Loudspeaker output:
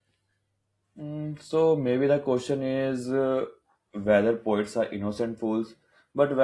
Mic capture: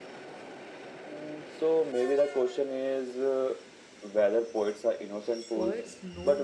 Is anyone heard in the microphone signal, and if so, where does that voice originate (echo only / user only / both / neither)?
both